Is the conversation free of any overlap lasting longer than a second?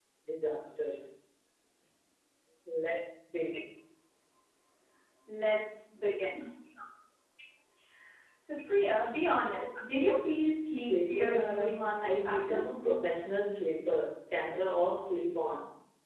No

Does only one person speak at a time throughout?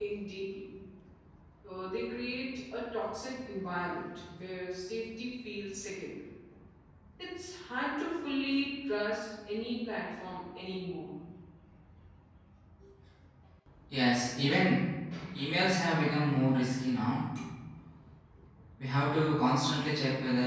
Yes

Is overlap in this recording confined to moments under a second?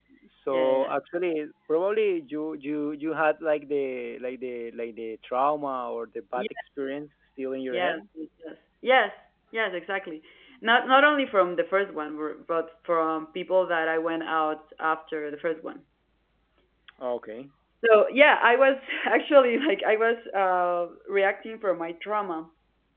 Yes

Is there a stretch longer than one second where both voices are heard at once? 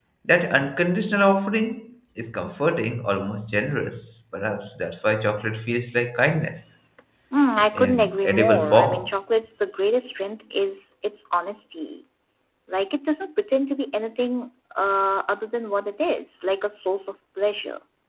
Yes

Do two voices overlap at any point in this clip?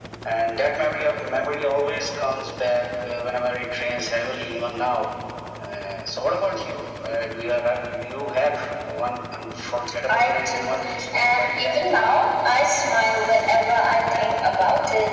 Yes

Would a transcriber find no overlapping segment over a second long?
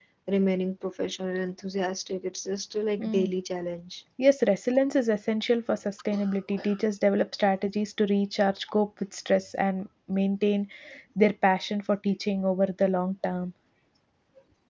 Yes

